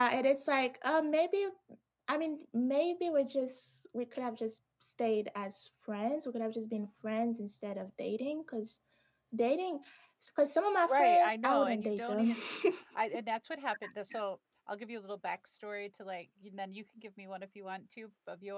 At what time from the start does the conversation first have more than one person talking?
10.8 s

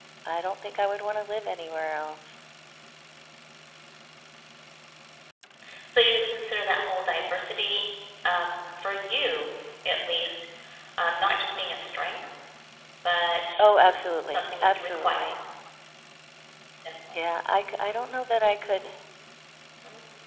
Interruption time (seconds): 13.6 s

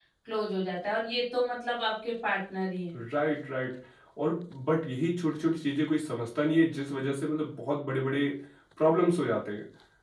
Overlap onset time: none

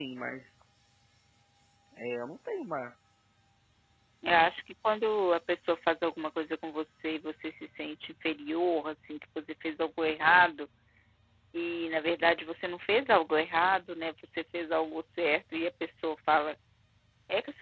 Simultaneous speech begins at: none

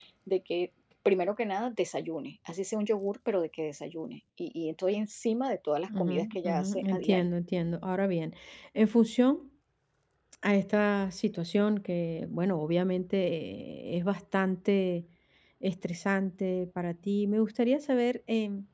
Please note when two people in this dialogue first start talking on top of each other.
5.9 s

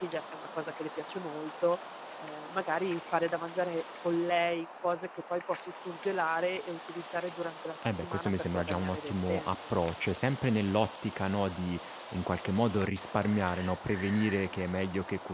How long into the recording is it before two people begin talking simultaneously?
7.8 s

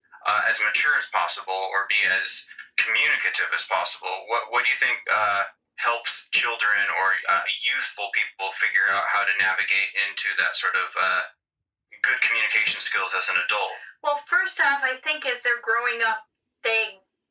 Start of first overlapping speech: none

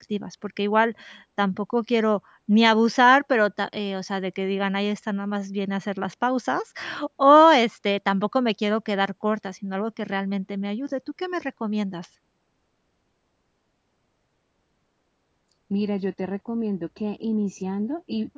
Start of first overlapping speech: none

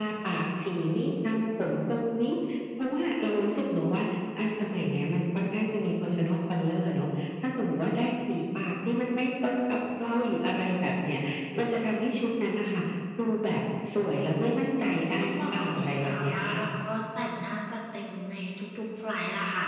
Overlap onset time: 14.8 s

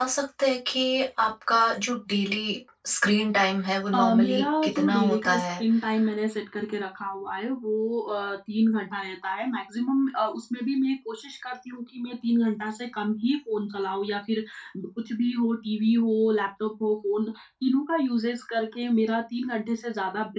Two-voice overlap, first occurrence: 3.9 s

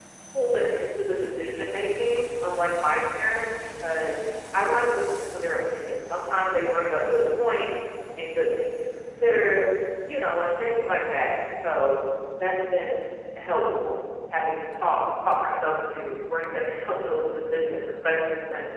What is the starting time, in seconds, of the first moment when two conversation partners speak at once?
none

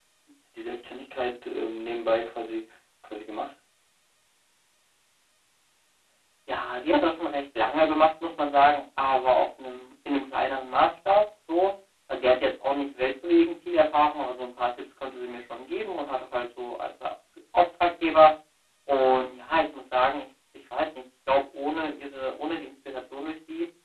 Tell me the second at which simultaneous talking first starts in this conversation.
none

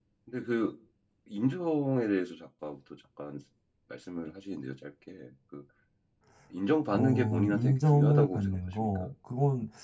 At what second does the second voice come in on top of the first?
6.9 s

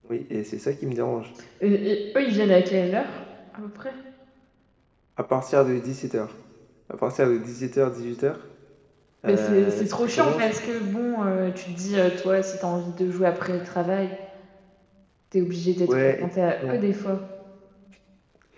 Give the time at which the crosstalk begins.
9.3 s

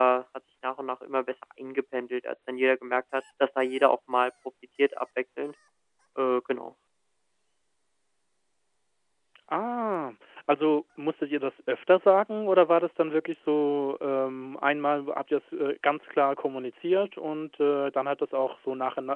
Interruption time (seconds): none

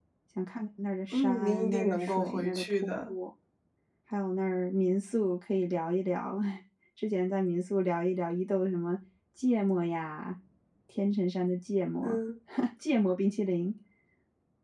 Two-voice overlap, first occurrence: 1.1 s

